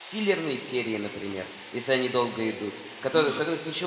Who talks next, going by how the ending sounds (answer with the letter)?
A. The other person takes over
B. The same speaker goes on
B